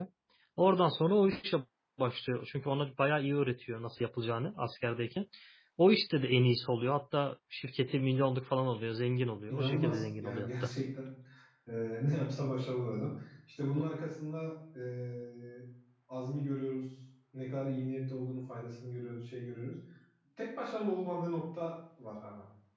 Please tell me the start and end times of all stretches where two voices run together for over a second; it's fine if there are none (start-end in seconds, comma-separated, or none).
9.5-10.7